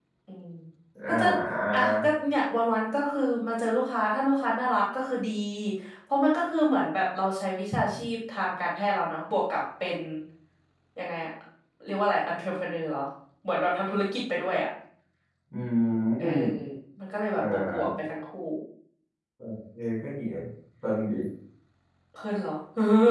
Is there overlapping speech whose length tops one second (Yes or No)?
No